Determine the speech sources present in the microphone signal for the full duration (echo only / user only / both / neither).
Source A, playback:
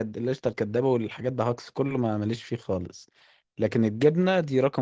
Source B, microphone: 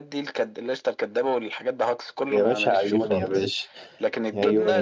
both